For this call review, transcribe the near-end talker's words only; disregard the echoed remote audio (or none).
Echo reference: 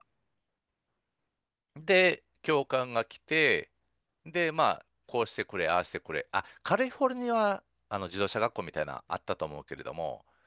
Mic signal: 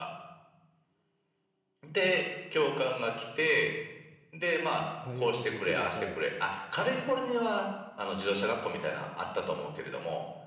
会話ができれば、